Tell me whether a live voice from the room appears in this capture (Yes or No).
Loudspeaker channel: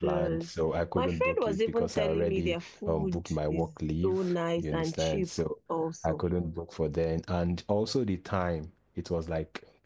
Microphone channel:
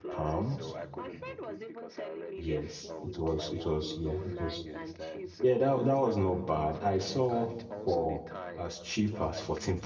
Yes